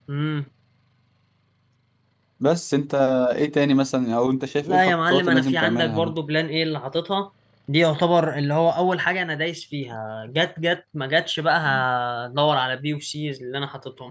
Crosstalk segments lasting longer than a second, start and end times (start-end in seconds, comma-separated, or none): 4.6-6.1